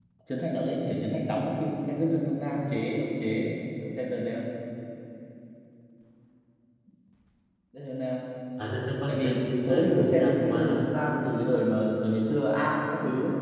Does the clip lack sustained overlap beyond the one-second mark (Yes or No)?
No